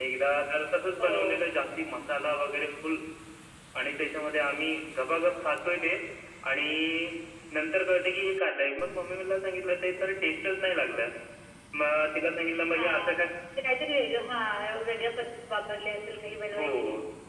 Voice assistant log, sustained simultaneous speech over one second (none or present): none